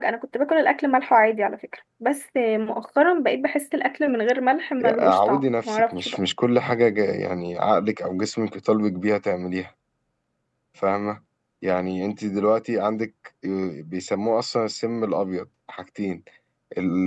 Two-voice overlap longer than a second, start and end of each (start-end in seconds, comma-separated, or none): 4.8-6.2